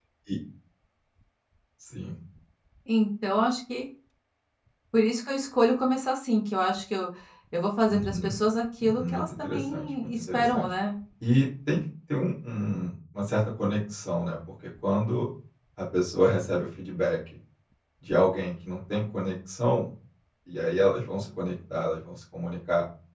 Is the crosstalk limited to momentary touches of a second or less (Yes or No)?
No